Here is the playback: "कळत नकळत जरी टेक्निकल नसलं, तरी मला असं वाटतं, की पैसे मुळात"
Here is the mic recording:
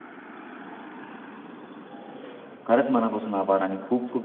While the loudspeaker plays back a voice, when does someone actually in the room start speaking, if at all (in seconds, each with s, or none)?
2.7 s